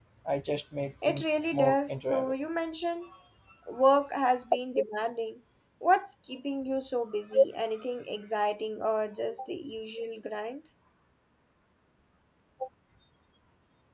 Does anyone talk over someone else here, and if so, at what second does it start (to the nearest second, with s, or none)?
1 s